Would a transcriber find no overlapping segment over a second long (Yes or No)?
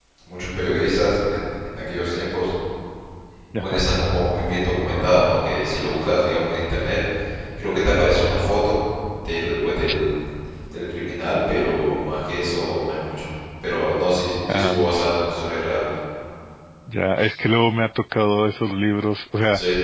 Yes